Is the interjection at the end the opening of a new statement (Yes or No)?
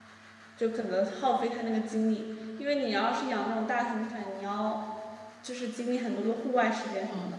Yes